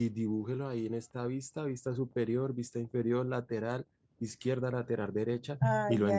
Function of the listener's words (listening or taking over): taking over